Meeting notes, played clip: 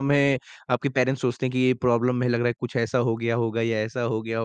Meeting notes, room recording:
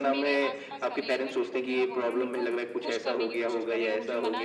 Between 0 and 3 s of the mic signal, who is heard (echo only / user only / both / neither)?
both